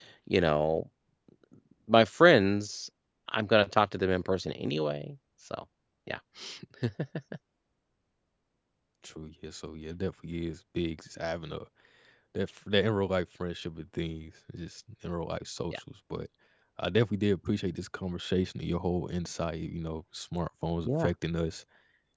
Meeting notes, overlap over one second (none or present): none